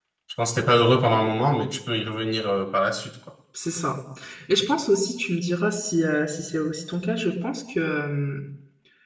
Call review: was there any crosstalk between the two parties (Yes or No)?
No